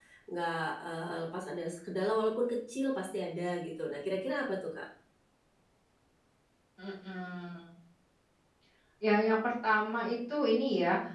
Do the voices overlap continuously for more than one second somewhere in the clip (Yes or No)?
No